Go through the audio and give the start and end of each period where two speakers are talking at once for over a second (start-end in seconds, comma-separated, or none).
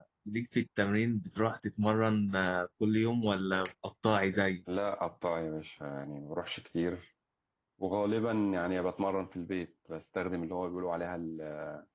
none